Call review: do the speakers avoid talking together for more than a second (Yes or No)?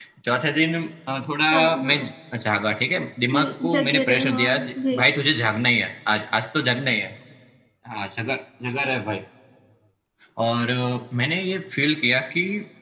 No